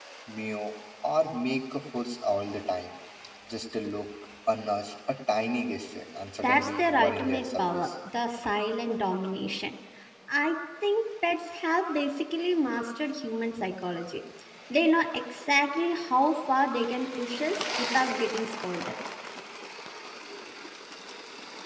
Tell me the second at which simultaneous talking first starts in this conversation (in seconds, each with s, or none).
6.4 s